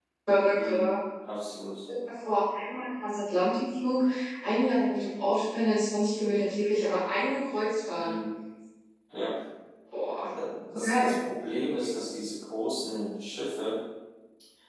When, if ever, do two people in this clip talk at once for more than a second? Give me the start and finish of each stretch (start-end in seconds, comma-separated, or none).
none